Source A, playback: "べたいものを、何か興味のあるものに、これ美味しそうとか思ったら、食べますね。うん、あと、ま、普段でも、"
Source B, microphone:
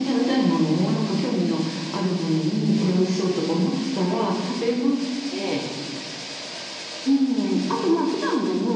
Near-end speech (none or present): none